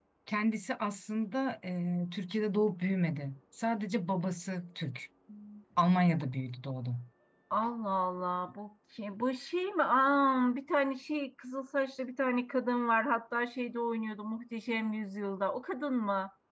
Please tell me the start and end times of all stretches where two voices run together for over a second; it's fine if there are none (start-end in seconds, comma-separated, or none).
none